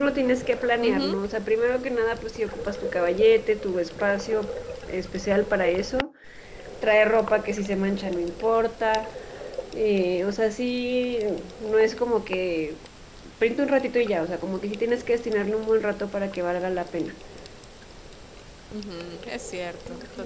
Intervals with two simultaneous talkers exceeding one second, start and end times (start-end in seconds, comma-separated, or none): none